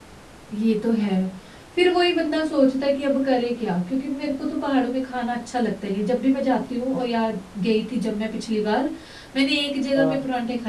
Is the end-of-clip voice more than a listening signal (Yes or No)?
No